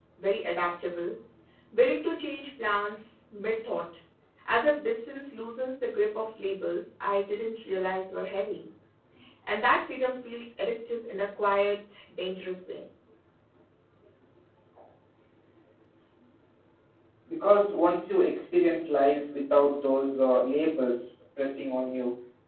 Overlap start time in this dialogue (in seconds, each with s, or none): none